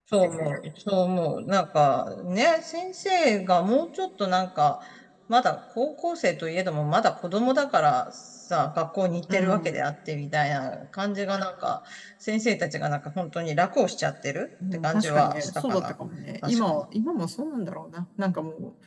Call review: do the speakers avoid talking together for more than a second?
No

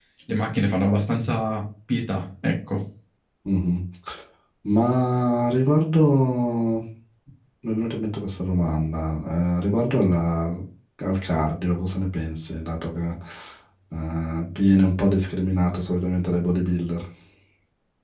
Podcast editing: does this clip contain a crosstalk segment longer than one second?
No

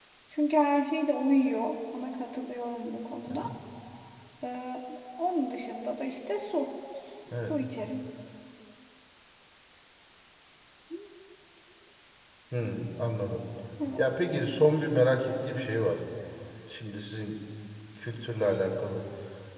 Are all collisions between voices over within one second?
Yes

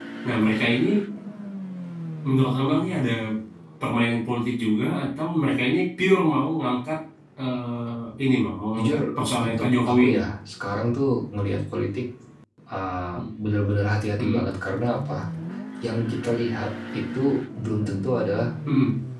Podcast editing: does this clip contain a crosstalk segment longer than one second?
Yes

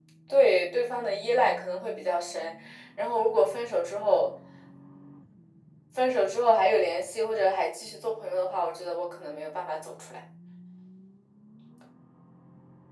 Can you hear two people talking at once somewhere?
No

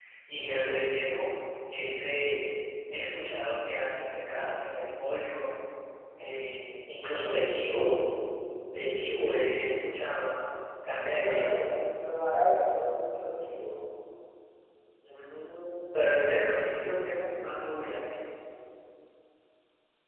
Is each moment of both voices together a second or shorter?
Yes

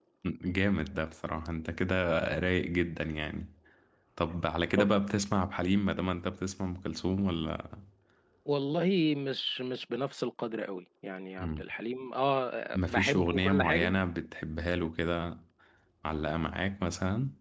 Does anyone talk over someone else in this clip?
Yes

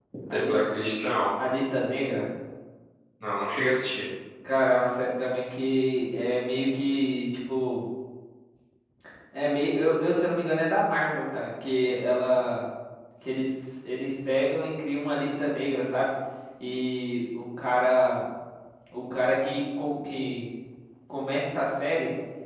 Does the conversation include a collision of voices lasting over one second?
No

